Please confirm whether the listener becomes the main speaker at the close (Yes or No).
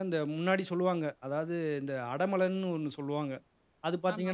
No